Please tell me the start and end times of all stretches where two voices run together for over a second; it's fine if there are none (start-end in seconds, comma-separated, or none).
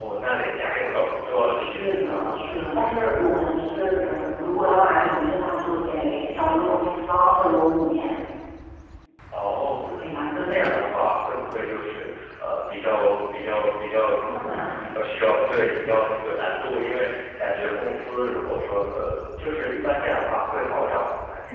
none